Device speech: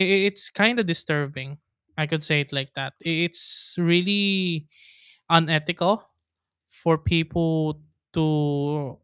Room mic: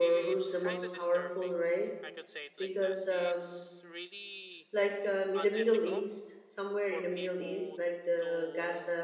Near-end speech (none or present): present